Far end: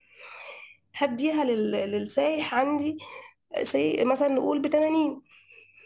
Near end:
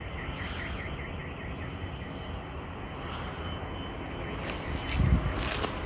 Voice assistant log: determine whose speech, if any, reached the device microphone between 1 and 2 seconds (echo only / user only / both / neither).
neither